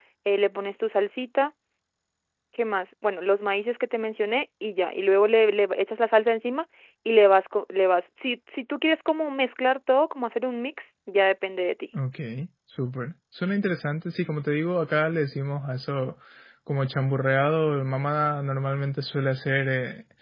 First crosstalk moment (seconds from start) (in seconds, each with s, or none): none